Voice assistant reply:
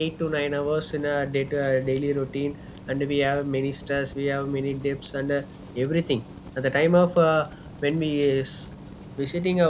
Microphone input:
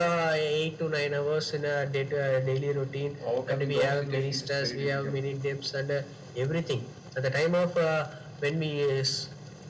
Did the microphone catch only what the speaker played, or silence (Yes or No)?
No